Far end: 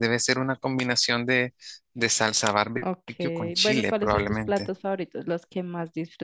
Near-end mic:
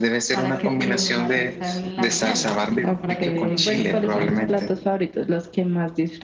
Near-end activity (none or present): present